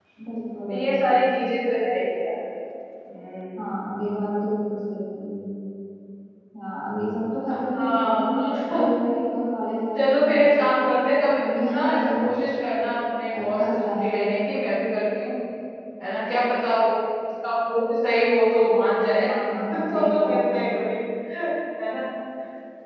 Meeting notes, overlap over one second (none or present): present